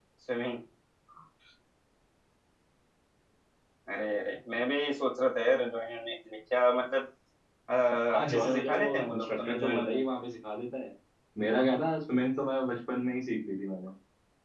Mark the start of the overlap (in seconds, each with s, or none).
8.2 s